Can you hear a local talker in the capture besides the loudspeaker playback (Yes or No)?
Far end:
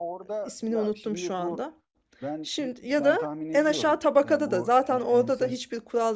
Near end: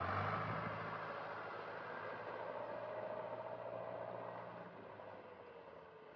No